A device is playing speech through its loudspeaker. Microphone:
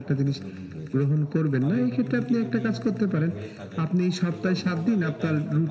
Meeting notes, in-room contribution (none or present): present